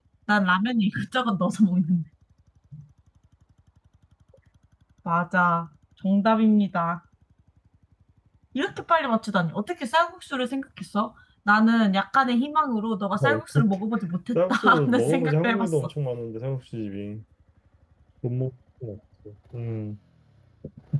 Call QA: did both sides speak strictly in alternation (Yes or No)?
No